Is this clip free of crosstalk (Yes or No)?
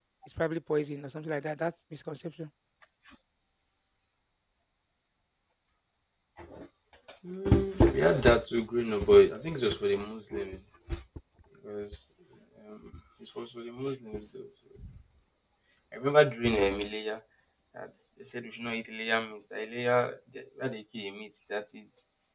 Yes